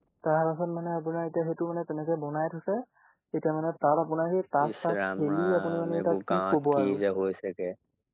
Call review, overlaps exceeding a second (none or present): present